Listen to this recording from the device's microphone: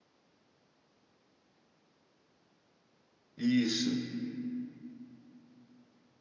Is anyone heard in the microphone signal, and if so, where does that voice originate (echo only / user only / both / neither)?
user only